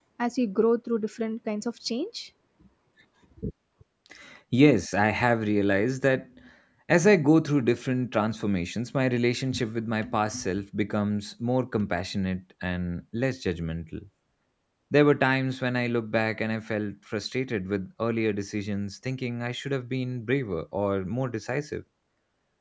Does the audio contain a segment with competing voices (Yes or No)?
No